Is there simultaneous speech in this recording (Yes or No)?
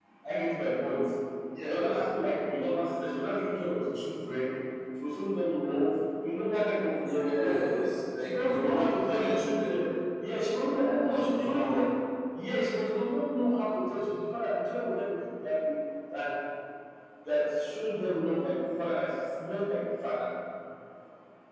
Yes